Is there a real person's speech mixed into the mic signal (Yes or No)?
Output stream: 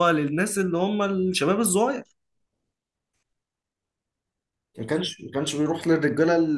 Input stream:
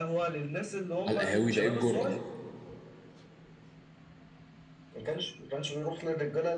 Yes